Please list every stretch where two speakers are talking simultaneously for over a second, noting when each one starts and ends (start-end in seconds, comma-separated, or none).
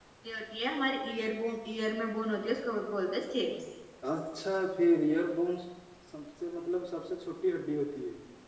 none